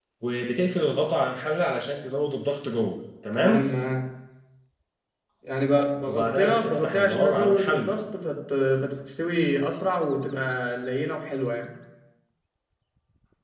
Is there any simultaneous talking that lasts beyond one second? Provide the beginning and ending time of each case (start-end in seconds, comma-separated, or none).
6.1-7.9